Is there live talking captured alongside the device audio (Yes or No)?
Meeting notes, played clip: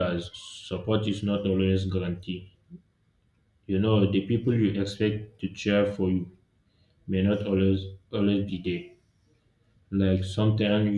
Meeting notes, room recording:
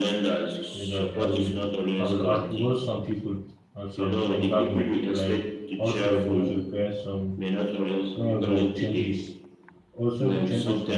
Yes